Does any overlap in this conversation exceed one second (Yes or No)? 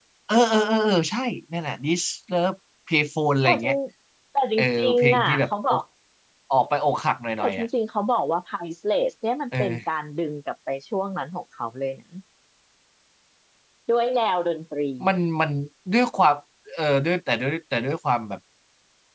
Yes